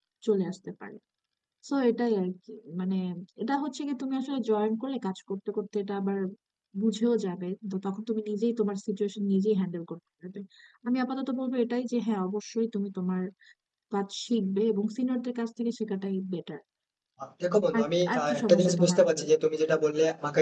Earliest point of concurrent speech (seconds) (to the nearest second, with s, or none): 18 s